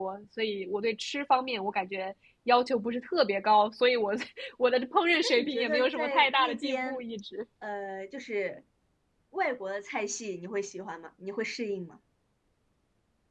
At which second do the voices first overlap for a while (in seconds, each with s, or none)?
5.2 s